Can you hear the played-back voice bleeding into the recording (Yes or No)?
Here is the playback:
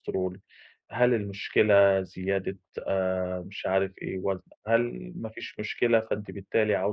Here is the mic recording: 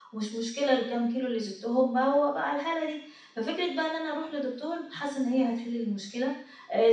No